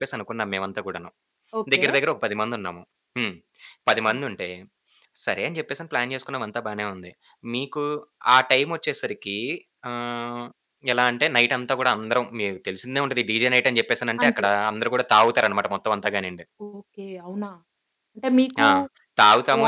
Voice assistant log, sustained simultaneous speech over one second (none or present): none